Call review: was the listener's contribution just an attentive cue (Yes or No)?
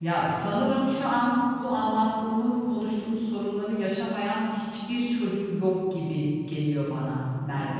No